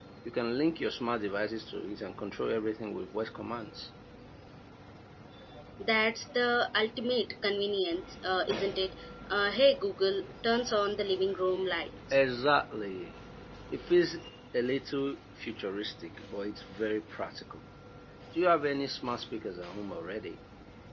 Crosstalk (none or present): none